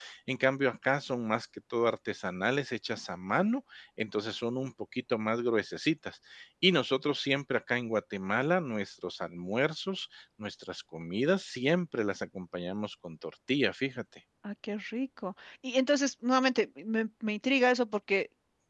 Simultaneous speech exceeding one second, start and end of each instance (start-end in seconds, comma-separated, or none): none